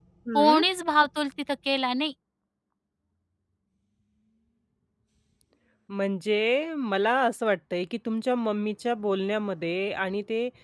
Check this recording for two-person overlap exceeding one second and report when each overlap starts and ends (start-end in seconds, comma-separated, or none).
none